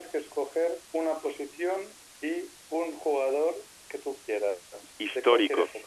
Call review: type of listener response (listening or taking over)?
taking over